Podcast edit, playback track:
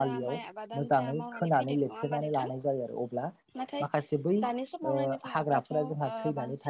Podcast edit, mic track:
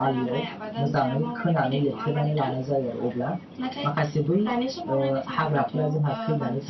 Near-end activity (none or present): none